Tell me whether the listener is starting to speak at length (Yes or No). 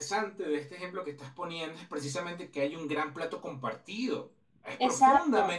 Yes